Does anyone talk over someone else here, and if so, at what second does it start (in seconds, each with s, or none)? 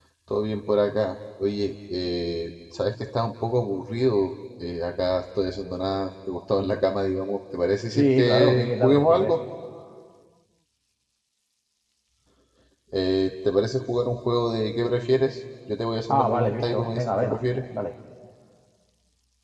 7.9 s